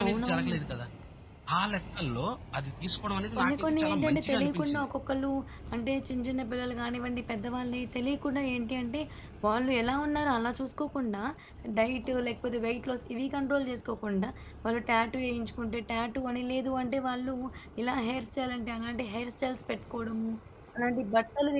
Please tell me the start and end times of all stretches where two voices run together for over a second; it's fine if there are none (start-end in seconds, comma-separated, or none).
3.4-4.9